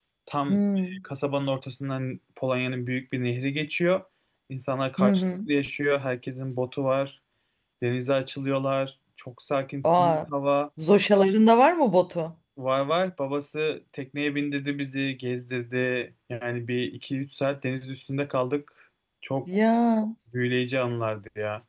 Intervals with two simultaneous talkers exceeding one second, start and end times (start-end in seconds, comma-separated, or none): none